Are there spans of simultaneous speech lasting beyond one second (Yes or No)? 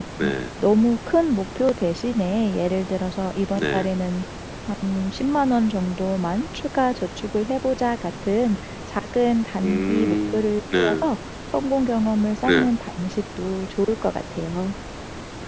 Yes